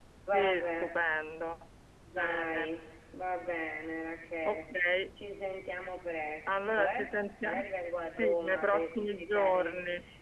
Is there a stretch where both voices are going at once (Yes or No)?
Yes